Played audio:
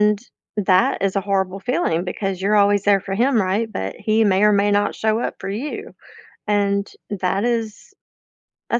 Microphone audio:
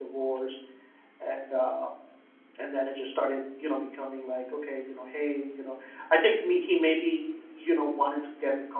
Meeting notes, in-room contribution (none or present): present